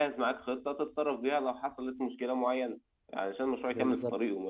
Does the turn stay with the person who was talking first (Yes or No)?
Yes